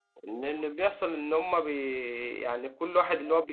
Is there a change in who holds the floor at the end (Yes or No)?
No